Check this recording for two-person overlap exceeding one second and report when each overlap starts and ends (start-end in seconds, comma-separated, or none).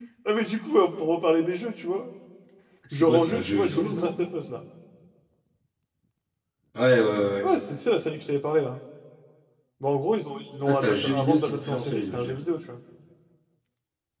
2.9-4.2, 10.7-12.3